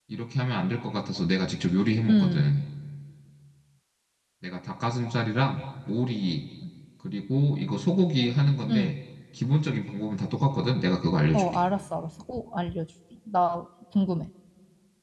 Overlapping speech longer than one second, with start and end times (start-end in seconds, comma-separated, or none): none